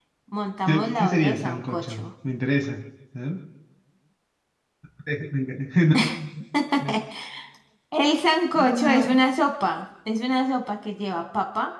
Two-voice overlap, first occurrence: 0.7 s

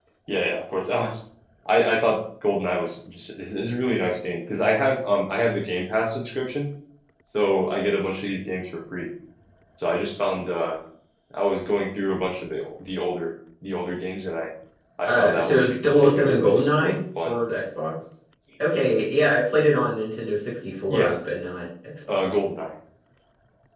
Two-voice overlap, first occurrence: 15.1 s

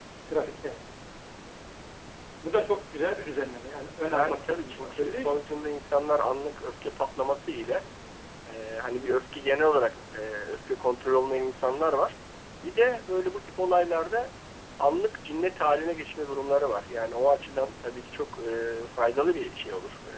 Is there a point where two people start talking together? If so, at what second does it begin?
4.1 s

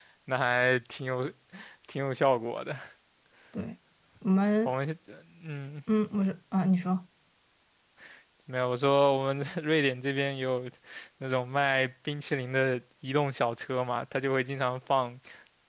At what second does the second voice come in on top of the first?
none

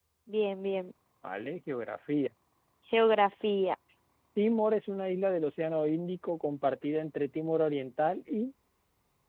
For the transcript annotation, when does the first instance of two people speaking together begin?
none

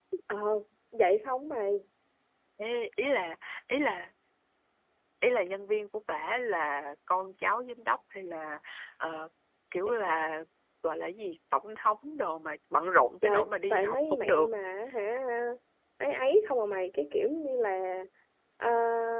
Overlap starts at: 13.2 s

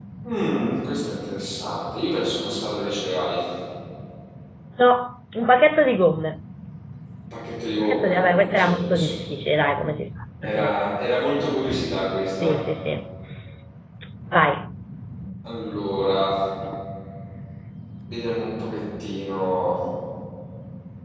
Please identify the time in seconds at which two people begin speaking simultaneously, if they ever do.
7.9 s

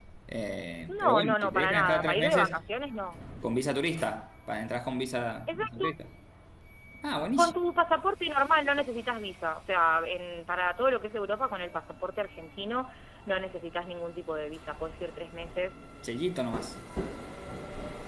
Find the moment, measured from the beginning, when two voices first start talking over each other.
0.9 s

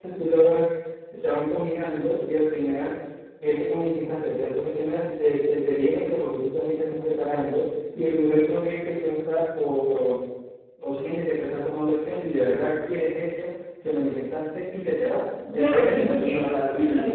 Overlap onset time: 15.6 s

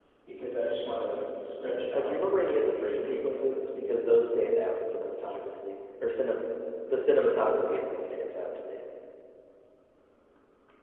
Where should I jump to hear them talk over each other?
1.9 s

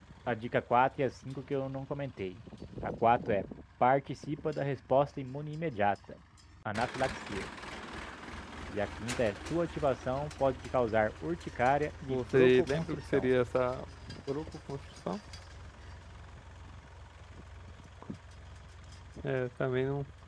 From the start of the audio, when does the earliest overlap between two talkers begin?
12.0 s

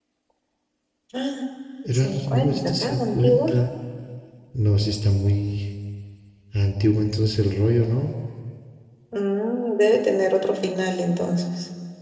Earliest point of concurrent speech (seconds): 1.9 s

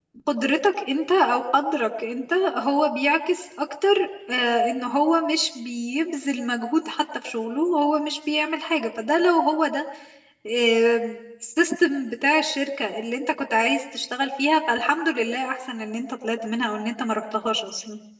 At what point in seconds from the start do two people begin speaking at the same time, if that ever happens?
none

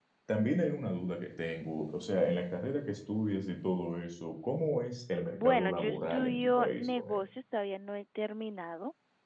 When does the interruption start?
5.3 s

